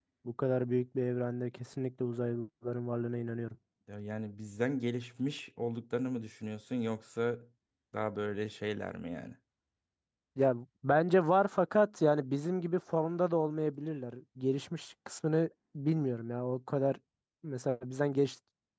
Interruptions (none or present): none